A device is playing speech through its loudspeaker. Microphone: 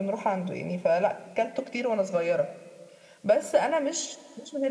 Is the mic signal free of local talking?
Yes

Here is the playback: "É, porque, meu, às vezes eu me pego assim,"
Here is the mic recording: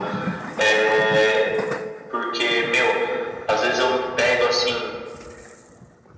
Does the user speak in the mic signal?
No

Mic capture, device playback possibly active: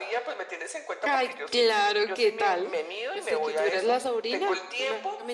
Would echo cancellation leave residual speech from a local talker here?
Yes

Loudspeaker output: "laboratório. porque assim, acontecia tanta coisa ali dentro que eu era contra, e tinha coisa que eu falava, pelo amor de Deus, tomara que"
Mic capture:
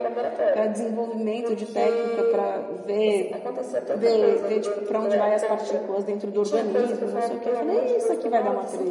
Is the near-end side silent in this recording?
No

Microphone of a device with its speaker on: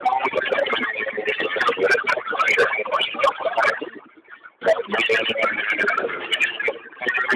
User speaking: Yes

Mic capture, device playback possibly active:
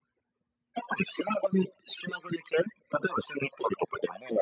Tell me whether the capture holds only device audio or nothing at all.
Yes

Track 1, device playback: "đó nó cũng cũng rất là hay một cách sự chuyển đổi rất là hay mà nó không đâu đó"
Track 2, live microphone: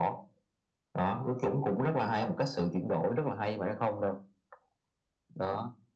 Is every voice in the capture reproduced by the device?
Yes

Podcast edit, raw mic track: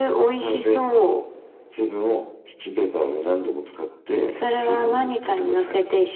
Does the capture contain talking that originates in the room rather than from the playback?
No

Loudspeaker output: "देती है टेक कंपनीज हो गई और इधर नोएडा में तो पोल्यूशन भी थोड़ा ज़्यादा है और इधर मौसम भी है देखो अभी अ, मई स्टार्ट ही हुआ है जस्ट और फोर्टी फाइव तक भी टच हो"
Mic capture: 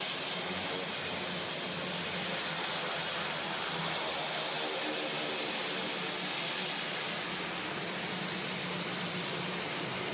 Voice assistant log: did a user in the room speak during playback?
No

